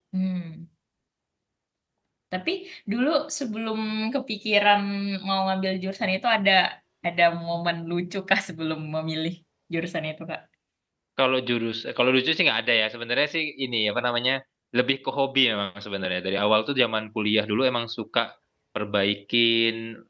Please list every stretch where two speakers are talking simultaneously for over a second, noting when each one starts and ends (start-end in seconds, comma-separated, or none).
none